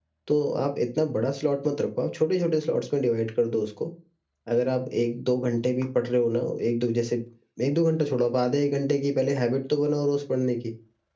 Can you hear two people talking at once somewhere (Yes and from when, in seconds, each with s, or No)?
No